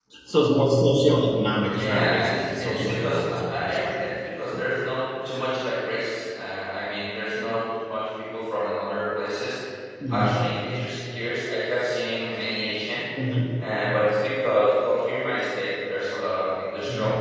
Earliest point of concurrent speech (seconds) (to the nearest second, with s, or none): 2 s